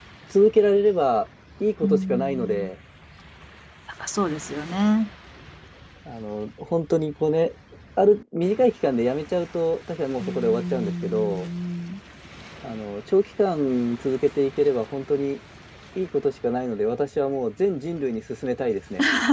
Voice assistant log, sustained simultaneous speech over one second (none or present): present